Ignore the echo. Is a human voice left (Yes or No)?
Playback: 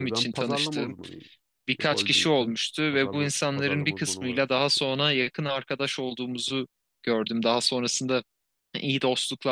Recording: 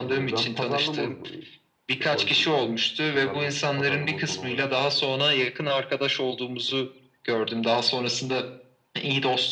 No